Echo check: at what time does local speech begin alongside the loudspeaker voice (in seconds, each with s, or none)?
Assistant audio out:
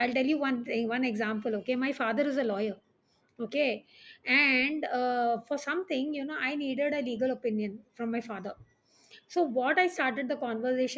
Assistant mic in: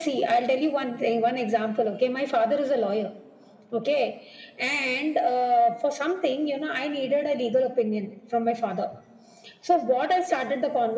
none